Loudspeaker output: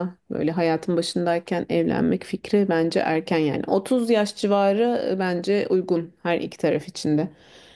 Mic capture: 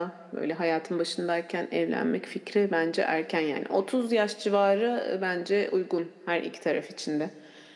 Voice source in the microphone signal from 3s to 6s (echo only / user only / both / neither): echo only